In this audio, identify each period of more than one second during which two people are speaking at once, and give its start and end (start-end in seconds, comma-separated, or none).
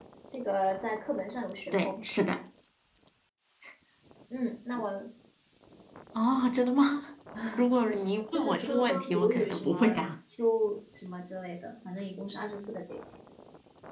8.3-10.1